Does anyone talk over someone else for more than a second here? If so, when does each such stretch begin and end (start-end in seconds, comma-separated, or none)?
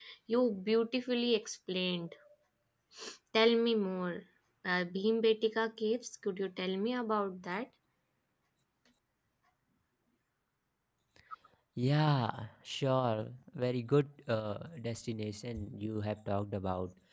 none